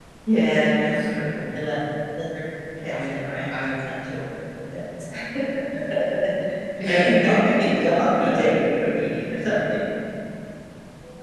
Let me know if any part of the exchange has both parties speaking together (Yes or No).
Yes